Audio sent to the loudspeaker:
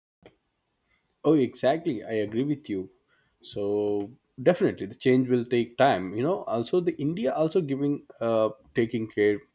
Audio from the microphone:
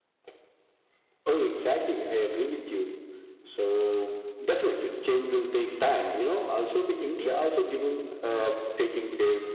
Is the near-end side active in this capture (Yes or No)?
No